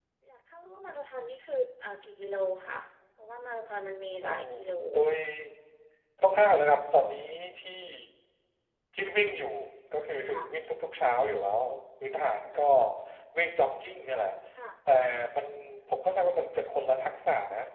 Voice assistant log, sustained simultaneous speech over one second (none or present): none